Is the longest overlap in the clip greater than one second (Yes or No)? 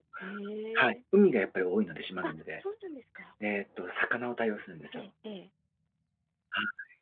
No